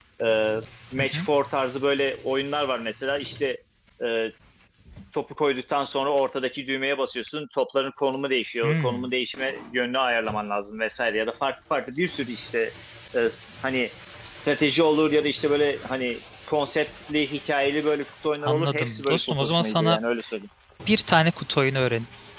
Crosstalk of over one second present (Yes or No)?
Yes